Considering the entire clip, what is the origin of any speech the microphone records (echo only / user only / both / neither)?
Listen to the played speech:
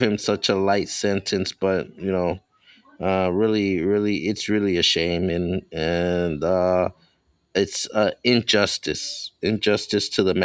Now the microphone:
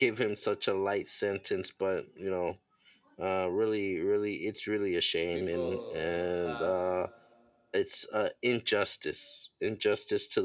both